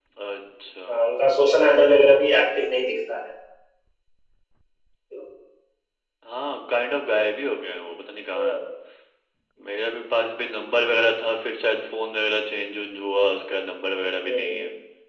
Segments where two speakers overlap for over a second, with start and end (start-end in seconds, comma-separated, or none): none